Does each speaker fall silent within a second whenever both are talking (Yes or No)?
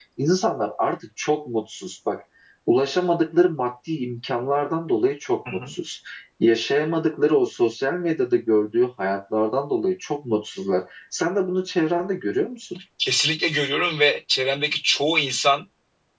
Yes